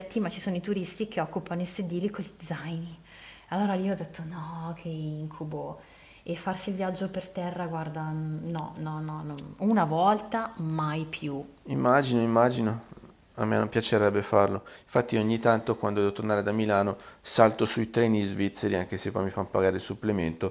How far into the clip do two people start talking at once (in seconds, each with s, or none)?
none